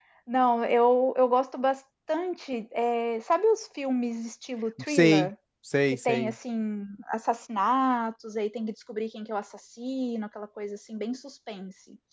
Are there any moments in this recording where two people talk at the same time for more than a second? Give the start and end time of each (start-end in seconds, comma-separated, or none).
none